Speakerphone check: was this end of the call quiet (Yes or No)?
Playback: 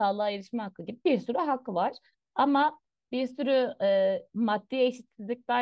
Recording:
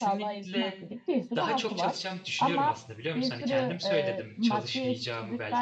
No